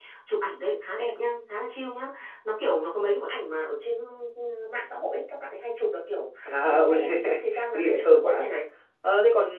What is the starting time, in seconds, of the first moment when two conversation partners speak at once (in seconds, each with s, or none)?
6.7 s